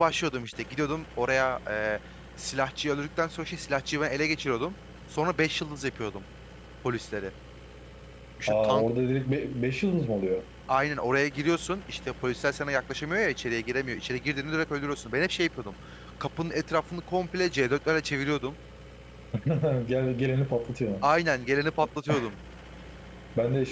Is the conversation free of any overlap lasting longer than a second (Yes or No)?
Yes